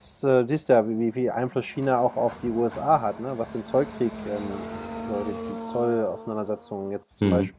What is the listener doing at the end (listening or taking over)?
listening